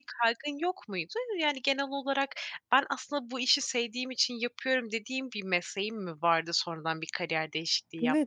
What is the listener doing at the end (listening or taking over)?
taking over